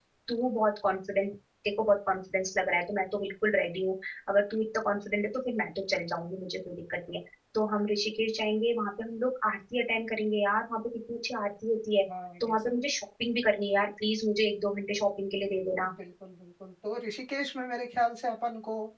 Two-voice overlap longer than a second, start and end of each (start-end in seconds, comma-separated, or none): none